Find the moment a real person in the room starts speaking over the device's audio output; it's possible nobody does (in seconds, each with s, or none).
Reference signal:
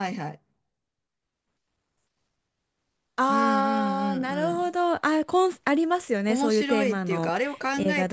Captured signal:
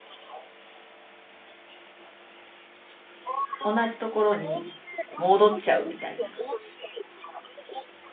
3.6 s